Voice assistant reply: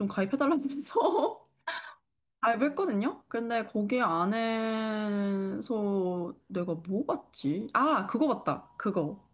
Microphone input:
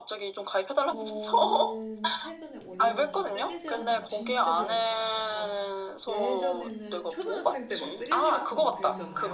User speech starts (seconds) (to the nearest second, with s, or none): 1 s